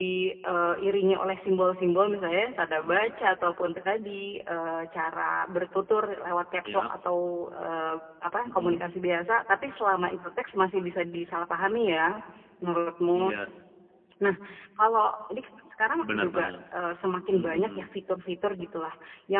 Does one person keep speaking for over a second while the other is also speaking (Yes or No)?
No